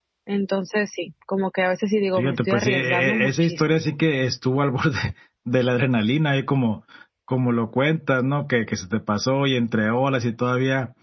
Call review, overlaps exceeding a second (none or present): present